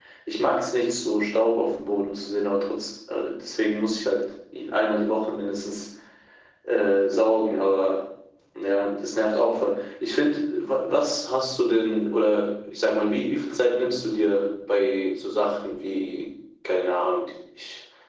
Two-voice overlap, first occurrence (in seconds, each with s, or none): none